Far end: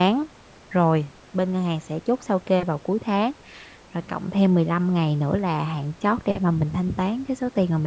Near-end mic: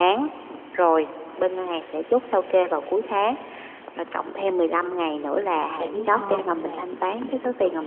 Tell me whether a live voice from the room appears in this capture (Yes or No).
Yes